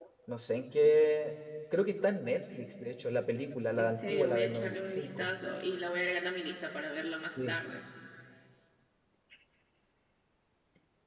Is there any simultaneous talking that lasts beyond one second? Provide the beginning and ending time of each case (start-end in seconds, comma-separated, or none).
3.8-5.3